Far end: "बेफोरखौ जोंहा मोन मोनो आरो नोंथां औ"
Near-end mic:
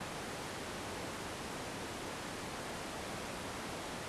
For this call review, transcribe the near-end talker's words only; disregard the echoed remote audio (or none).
none